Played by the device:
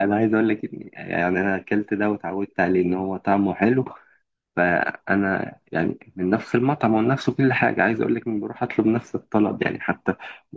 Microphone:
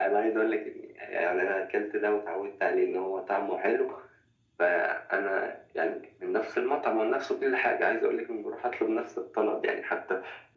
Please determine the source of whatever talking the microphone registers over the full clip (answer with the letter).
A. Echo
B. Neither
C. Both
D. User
A